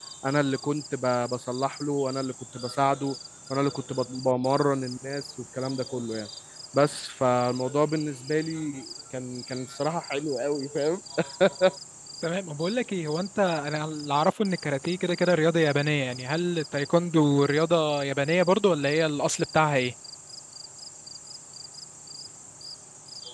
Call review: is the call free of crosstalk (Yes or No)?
Yes